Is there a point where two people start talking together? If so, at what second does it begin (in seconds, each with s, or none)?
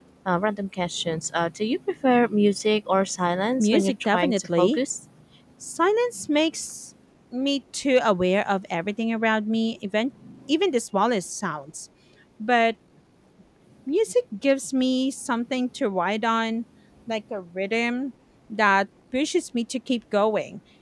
3.6 s